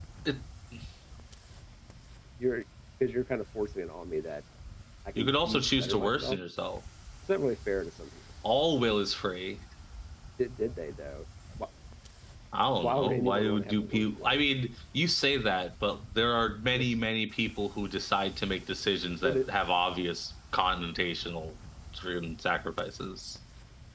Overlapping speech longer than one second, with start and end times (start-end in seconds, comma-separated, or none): 5.2-6.4, 12.8-14.4